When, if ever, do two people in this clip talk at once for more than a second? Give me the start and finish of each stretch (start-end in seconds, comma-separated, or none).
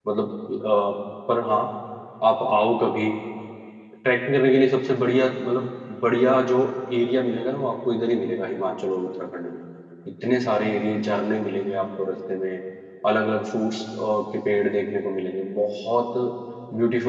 none